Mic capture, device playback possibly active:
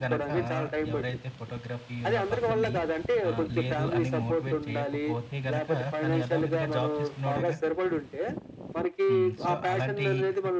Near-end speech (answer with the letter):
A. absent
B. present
B